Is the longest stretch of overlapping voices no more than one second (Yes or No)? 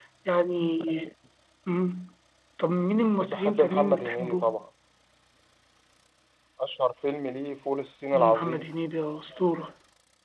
No